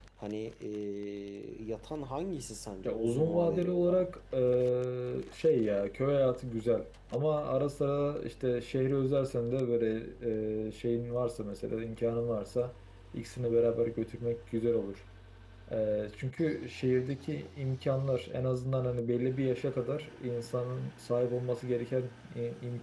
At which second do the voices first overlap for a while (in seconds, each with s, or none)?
2.8 s